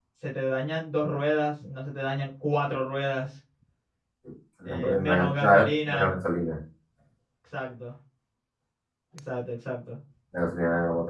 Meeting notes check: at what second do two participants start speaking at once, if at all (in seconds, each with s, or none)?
4.7 s